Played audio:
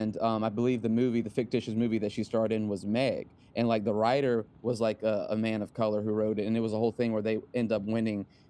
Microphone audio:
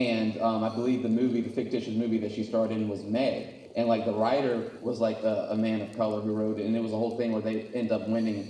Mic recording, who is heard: echo only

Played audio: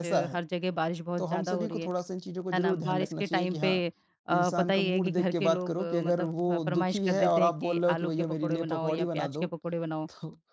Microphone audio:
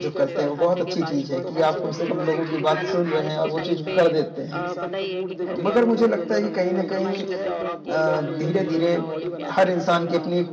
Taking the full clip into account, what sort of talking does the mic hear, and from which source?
both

